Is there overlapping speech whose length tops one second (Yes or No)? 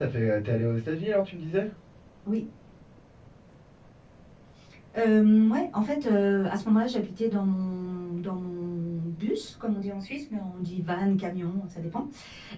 No